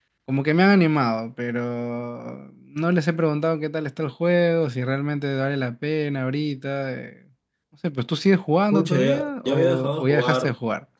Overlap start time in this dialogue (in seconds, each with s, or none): 8.7 s